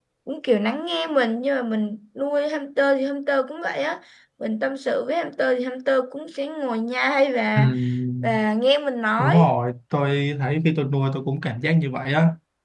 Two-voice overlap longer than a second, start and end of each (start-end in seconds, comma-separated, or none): none